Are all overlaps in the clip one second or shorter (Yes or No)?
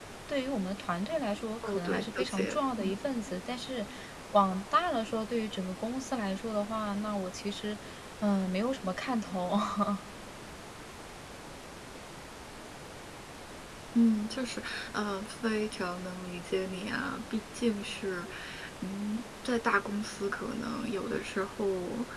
No